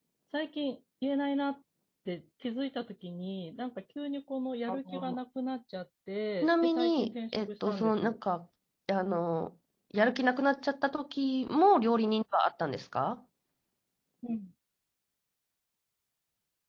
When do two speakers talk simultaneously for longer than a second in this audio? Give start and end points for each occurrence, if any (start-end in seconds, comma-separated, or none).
6.4-8.2